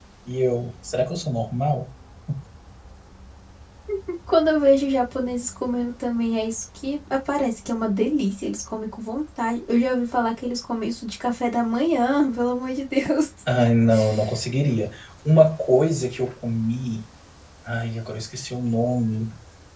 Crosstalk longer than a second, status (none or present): none